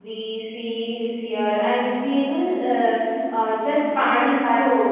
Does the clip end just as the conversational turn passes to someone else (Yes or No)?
Yes